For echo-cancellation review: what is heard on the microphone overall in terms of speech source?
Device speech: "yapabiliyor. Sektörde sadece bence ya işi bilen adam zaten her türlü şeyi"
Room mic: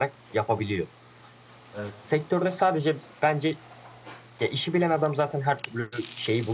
both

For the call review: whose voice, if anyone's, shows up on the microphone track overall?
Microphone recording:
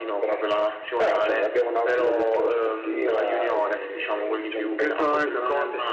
both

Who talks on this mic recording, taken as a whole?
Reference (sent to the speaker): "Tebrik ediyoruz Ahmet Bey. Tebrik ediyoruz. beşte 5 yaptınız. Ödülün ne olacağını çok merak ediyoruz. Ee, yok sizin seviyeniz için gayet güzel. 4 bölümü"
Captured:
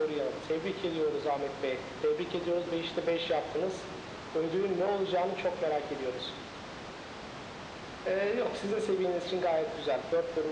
echo only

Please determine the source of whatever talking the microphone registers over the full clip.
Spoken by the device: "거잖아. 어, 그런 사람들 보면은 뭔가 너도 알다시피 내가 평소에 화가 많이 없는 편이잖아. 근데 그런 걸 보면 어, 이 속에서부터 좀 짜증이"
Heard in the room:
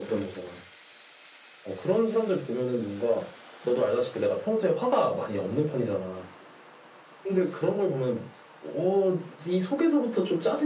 echo only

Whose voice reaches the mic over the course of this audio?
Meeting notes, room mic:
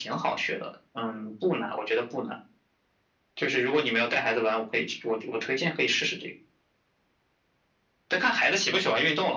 echo only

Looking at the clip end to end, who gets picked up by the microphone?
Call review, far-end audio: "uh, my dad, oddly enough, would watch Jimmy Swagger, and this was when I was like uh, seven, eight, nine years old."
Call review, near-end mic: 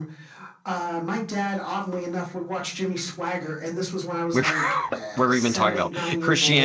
both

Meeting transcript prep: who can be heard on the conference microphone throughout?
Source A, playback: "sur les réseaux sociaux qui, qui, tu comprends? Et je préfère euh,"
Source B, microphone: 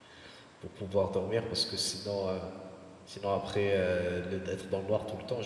user only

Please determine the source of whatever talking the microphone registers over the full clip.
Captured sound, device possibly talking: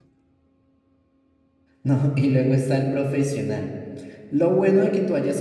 user only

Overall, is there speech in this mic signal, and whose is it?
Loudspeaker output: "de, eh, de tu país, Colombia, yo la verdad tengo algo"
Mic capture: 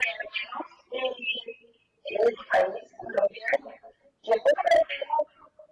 echo only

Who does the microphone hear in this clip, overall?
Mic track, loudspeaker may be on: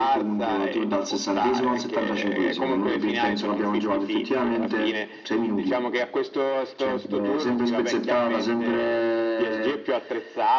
echo only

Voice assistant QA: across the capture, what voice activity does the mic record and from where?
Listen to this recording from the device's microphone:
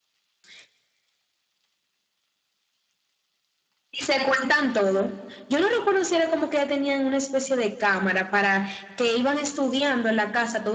echo only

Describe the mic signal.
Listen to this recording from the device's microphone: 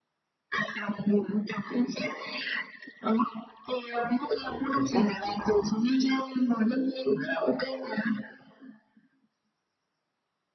both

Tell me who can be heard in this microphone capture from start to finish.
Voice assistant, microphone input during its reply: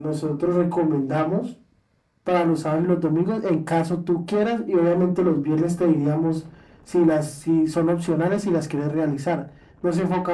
echo only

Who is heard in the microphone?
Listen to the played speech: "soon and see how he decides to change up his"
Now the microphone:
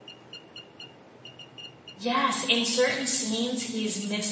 user only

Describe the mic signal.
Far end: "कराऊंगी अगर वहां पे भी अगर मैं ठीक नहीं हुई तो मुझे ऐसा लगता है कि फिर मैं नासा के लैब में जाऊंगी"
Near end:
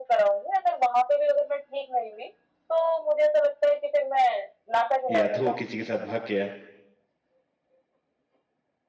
both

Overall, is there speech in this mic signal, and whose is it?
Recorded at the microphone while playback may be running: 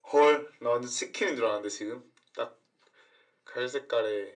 echo only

